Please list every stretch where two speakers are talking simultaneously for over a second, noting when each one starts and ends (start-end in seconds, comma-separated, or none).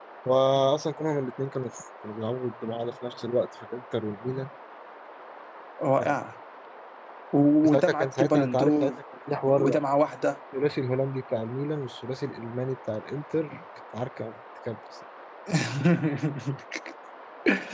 7.6-8.9